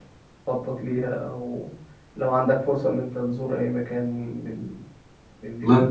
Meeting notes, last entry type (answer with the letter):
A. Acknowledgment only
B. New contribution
B